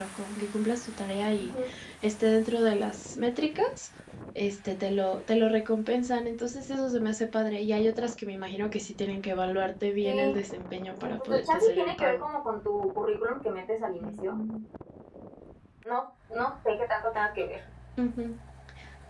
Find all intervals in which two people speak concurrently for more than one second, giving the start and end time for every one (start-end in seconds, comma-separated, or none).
11.0-12.2